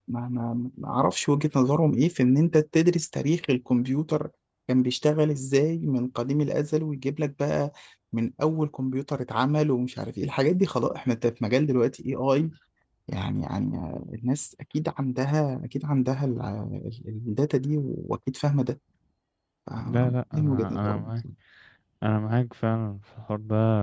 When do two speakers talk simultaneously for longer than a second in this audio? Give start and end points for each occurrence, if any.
19.9-21.1

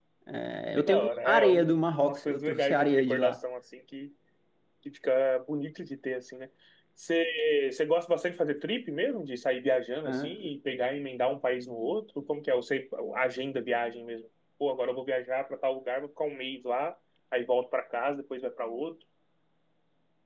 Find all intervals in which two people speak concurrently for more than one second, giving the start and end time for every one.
0.8-3.4

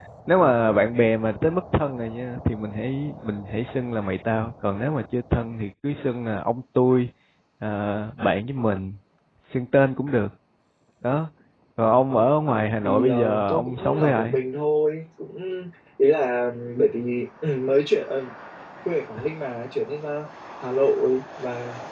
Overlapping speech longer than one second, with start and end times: 12.8-14.4

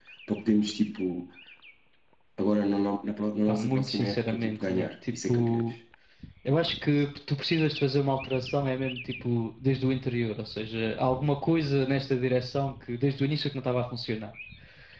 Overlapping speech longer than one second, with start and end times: 3.5-5.6

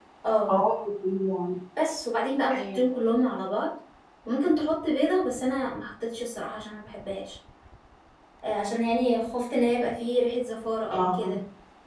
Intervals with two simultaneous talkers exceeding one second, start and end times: none

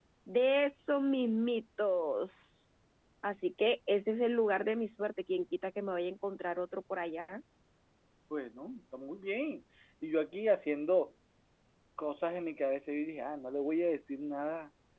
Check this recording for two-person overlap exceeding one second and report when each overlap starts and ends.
none

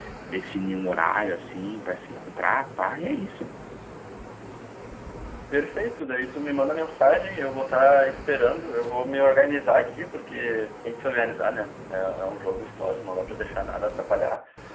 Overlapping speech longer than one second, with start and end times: none

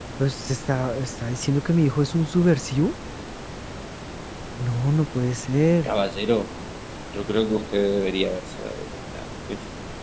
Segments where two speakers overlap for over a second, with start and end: none

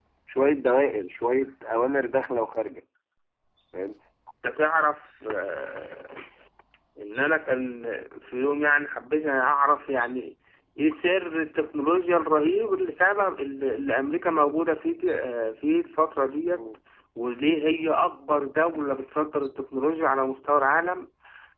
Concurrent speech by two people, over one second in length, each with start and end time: none

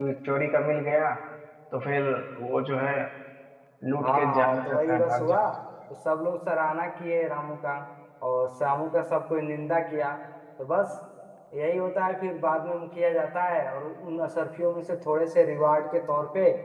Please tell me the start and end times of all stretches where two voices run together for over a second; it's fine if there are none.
4.0-5.4

